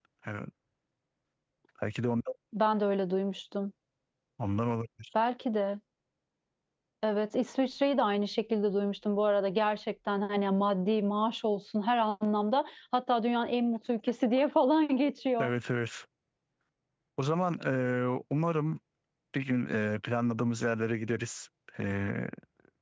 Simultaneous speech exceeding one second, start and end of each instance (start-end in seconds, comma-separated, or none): none